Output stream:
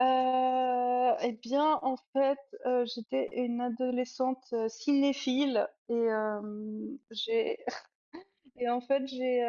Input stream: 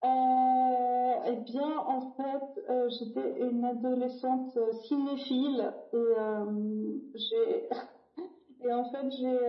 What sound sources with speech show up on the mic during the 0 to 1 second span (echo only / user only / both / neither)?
echo only